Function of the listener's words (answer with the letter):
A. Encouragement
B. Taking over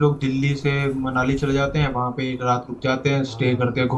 A